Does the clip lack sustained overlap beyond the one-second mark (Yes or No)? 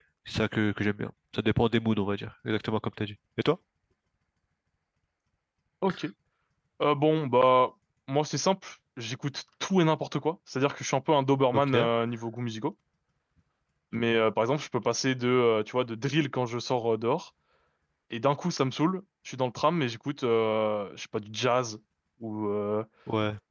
Yes